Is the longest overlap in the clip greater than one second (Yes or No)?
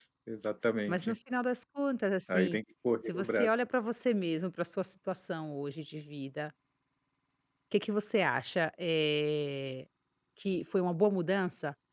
No